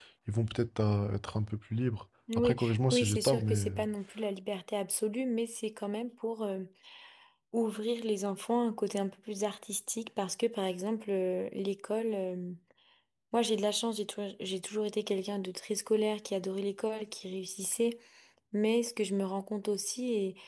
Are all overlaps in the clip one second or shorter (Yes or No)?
No